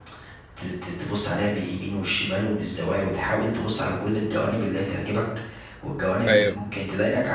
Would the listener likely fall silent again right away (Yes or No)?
Yes